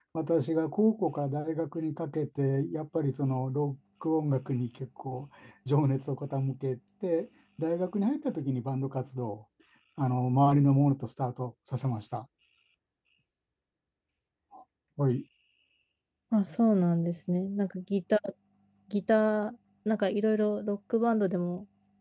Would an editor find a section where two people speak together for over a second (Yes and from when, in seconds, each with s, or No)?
No